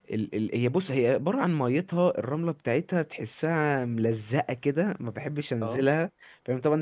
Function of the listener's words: listening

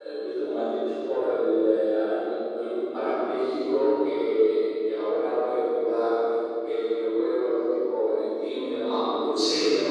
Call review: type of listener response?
listening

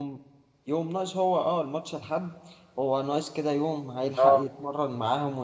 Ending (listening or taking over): listening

